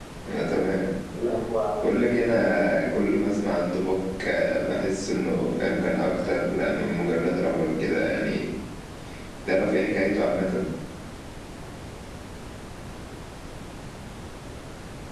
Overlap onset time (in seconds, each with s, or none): 1.8 s